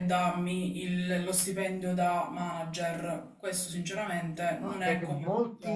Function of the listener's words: taking over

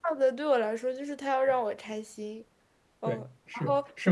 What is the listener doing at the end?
taking over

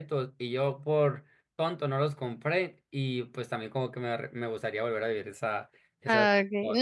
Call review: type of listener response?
taking over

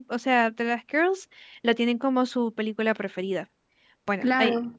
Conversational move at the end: taking over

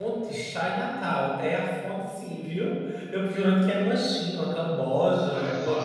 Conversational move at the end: taking over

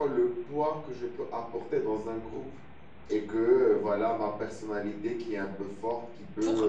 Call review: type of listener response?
listening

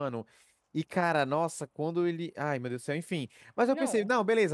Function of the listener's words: listening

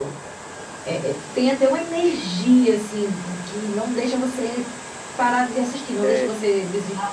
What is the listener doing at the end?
listening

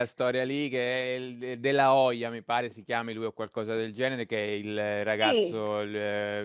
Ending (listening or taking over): listening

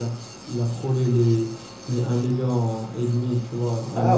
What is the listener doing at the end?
taking over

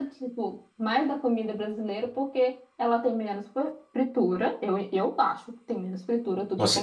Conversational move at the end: listening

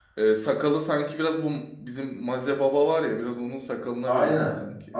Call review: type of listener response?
taking over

